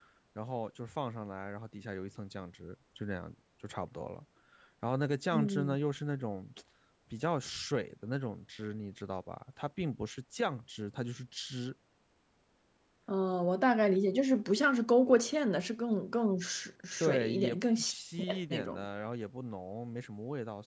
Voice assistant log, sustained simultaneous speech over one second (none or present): present